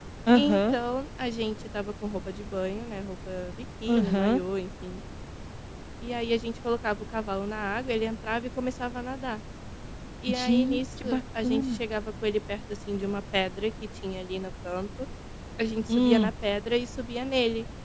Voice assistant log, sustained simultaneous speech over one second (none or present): present